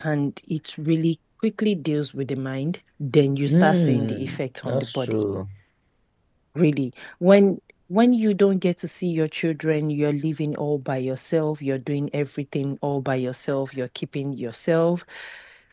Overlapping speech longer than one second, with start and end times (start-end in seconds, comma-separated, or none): 3.5-5.2